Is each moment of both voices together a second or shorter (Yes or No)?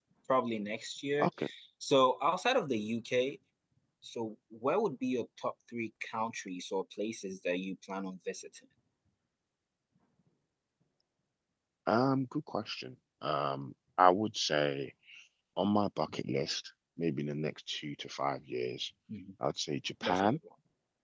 Yes